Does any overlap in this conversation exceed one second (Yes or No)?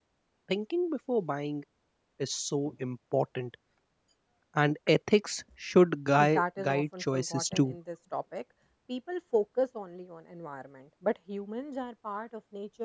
Yes